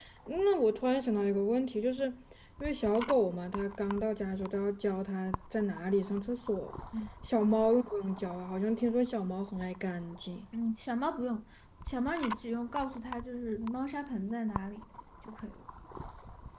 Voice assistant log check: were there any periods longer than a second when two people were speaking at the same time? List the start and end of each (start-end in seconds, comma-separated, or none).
none